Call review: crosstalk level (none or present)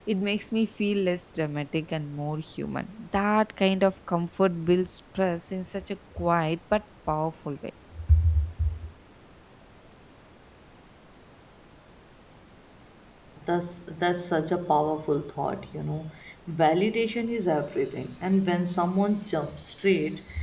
none